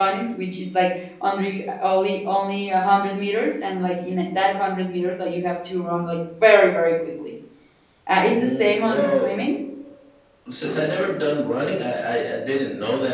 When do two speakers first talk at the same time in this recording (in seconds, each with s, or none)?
8.3 s